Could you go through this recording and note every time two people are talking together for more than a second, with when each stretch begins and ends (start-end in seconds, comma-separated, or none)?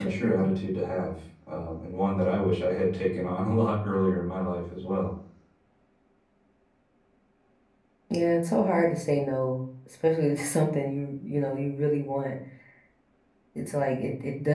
none